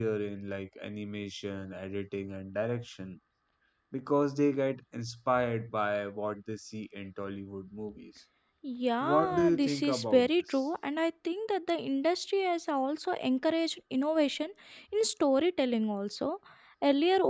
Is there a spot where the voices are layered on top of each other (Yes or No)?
Yes